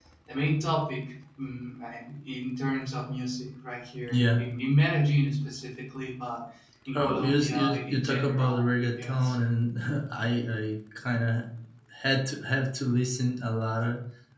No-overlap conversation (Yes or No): No